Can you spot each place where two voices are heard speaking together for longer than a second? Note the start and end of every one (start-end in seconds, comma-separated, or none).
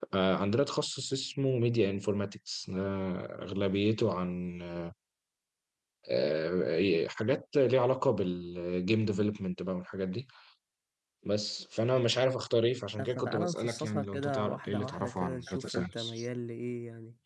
13.0-16.2